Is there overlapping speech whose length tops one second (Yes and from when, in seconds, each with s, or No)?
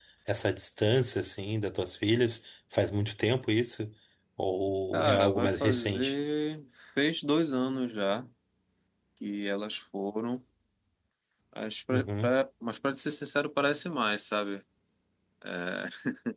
Yes, from 4.9 s